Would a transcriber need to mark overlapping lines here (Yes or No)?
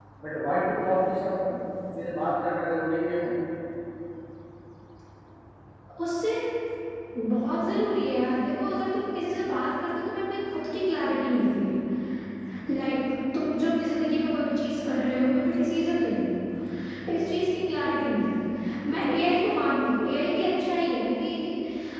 No